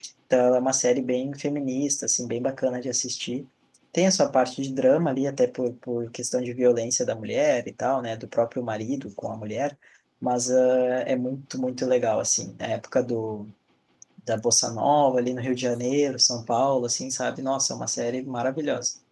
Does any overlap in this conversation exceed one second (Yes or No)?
No